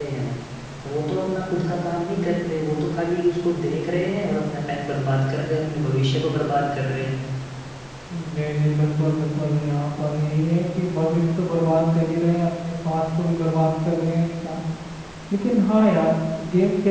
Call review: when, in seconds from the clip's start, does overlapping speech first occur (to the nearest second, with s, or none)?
none